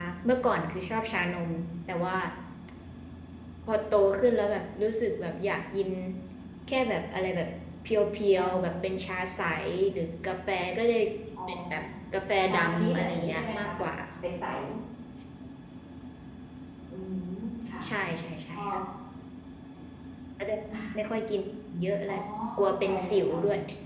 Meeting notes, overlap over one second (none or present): present